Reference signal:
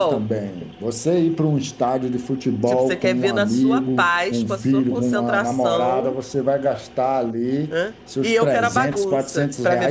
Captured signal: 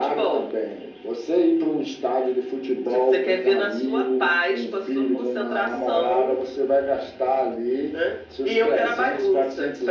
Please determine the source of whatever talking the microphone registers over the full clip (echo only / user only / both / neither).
echo only